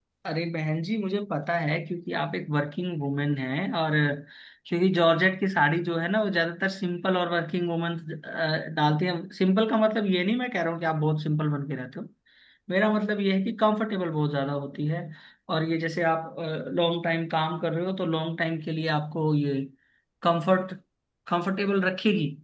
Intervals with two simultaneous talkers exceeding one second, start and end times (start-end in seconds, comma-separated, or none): none